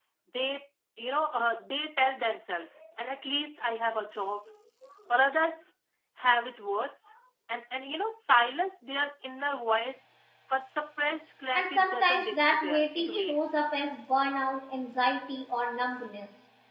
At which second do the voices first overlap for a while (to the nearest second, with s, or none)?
12 s